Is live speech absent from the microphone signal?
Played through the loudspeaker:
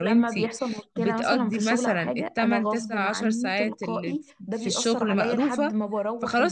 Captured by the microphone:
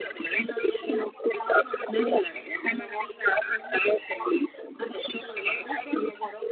Yes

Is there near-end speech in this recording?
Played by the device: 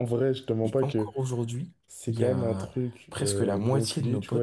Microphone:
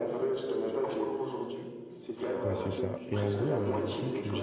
Yes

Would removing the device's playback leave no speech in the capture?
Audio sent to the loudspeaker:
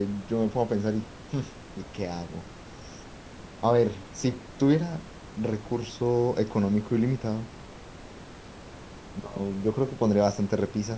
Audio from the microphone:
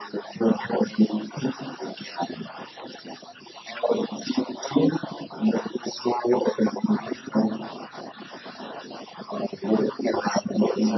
Yes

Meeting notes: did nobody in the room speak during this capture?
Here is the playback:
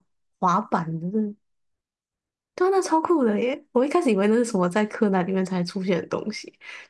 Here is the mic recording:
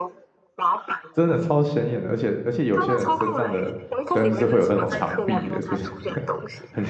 No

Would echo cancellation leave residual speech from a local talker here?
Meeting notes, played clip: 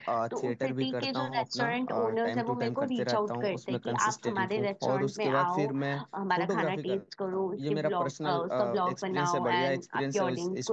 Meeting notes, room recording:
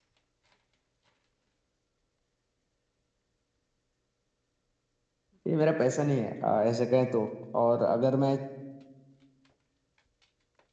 Yes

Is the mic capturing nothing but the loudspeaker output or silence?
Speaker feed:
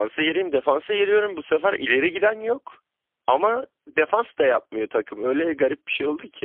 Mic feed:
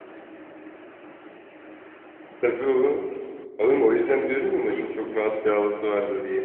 No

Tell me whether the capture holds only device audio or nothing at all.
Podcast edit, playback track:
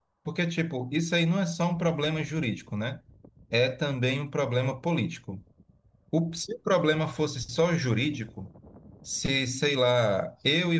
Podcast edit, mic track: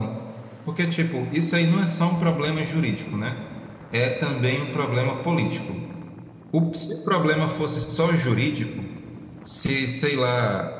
Yes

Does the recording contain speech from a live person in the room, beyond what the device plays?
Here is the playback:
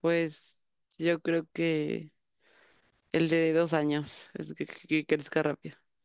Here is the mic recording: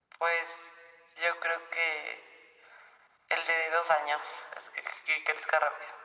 No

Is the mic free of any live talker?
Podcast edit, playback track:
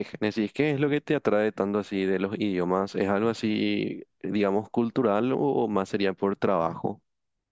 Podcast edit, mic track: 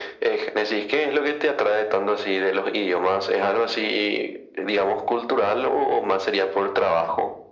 Yes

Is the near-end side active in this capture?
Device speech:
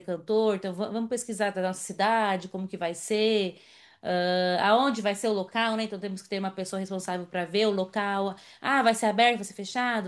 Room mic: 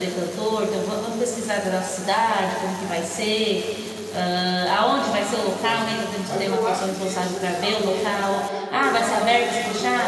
Yes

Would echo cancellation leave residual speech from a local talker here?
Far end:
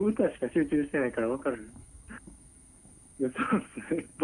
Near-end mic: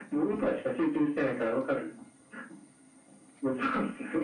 No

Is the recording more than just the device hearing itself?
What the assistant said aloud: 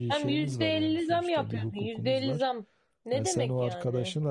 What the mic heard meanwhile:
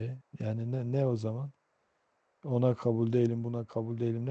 Yes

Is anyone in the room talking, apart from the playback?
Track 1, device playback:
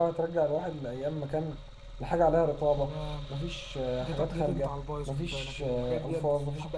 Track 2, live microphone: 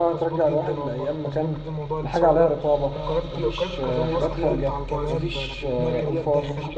Yes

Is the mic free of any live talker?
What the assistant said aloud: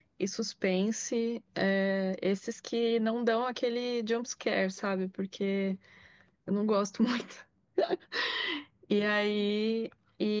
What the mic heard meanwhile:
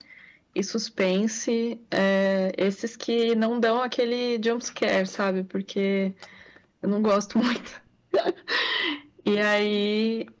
Yes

